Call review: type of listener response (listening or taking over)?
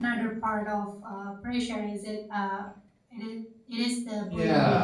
taking over